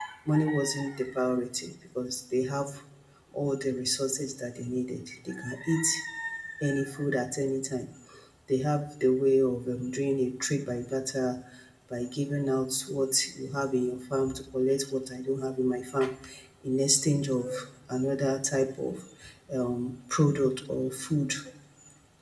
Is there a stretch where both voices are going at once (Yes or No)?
No